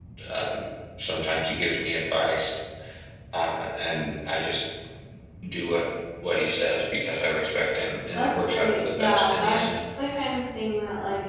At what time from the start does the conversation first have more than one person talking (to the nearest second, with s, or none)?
8 s